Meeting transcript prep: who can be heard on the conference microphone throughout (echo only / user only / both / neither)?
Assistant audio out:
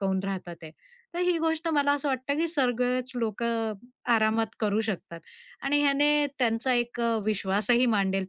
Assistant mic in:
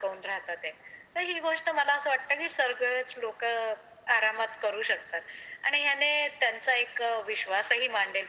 echo only